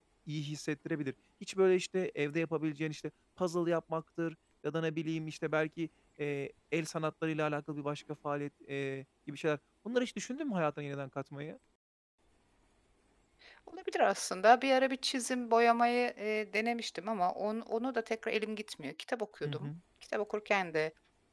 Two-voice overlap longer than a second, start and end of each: none

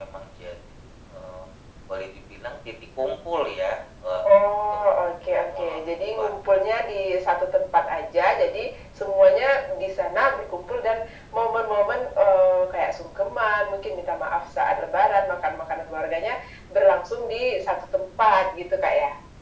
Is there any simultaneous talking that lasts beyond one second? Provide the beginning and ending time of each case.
5.4-6.6

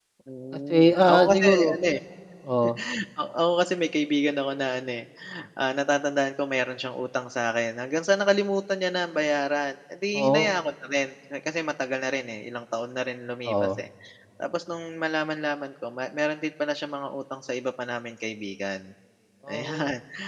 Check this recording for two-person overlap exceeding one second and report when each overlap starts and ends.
0.5-1.8

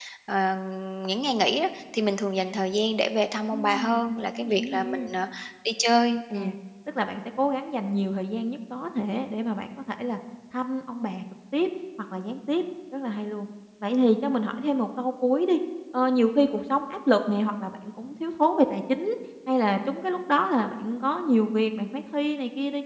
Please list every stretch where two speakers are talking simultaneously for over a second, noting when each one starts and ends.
3.5-5.1

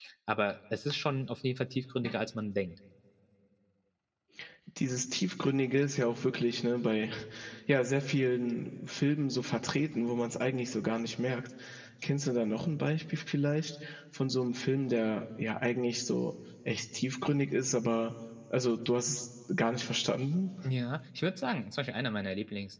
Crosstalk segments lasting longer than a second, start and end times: none

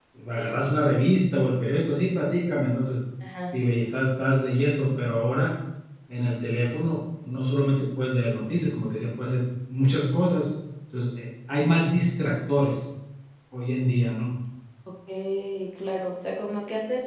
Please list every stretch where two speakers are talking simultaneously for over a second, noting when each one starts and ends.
none

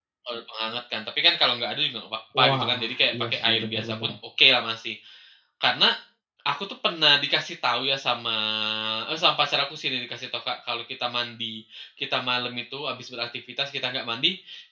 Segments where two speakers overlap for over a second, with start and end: 2.4-4.1

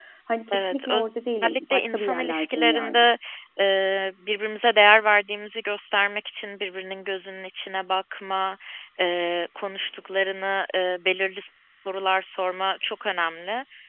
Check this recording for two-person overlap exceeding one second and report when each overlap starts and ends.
1.4-3.0

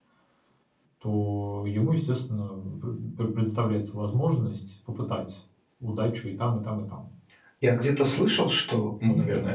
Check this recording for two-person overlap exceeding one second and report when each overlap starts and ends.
none

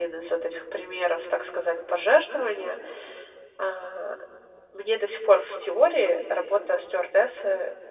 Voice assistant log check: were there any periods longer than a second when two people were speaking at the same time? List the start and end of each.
none

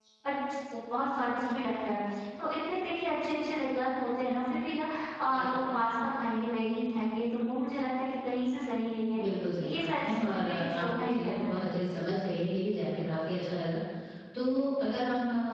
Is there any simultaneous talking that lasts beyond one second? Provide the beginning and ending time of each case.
9.7-11.6

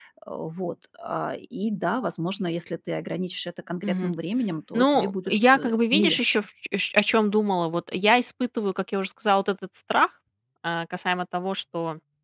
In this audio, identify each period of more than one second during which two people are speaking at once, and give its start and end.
4.7-6.5

